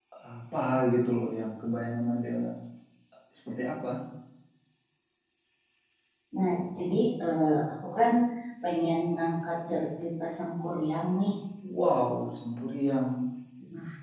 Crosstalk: none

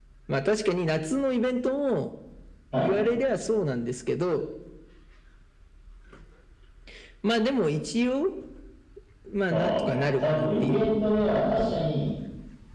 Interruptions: present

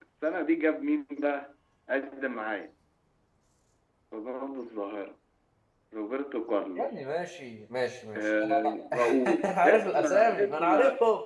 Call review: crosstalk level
present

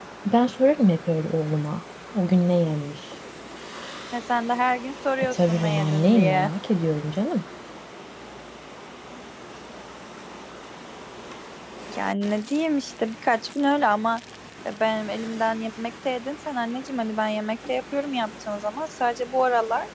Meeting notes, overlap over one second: present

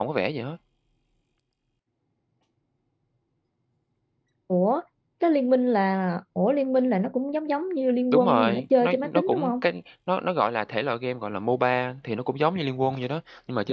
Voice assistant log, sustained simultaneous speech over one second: present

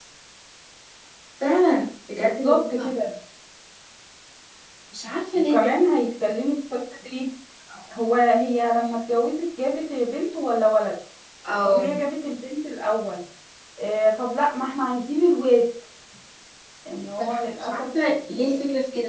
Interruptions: present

